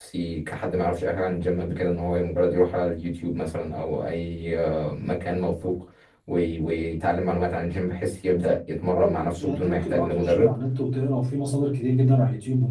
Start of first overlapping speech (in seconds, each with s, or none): 8.9 s